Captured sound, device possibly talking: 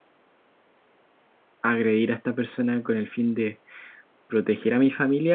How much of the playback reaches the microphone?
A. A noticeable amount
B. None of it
B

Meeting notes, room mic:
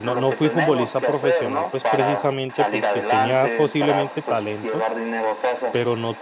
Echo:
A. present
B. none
A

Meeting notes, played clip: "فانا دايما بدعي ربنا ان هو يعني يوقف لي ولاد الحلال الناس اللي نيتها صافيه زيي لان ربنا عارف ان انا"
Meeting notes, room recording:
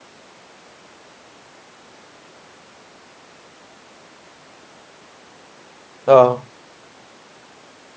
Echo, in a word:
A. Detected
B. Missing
B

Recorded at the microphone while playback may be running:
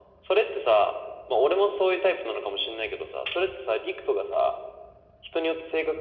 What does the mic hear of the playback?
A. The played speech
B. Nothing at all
A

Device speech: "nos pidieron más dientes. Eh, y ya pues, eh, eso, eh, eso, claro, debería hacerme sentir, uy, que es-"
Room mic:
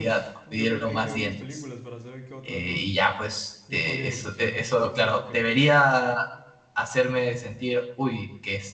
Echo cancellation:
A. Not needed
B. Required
B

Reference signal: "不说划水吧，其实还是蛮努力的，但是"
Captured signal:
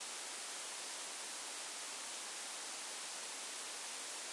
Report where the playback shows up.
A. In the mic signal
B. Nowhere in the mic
B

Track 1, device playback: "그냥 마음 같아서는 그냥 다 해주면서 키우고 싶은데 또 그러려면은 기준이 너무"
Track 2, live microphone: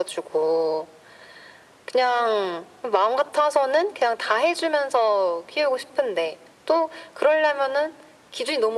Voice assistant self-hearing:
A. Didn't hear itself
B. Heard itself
B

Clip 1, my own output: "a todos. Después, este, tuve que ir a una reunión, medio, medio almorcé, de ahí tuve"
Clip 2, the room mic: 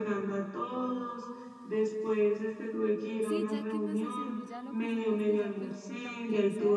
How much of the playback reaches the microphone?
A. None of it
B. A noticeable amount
B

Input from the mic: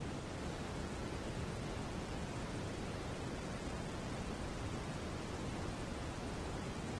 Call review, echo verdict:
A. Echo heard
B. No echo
B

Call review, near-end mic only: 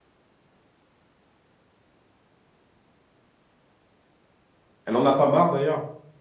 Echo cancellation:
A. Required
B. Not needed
B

